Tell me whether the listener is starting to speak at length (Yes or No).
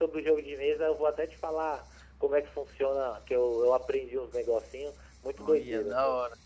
Yes